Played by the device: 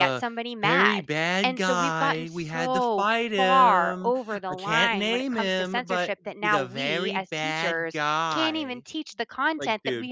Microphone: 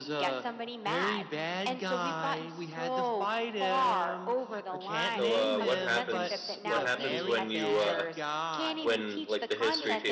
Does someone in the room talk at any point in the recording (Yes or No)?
Yes